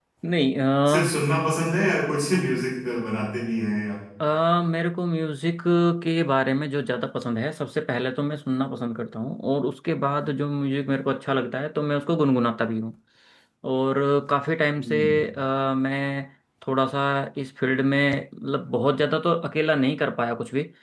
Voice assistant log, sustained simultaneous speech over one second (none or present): none